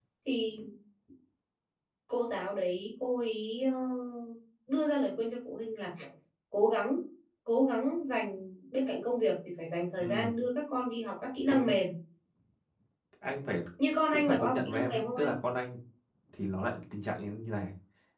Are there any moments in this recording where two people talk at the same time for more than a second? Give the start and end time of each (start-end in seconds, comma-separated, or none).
14.1-15.3